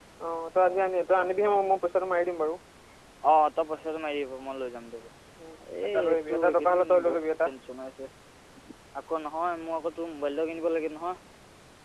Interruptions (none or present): present